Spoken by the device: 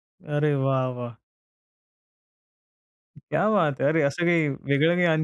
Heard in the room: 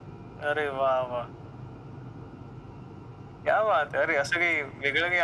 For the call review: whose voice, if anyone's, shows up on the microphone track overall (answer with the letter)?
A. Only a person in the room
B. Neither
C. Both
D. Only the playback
D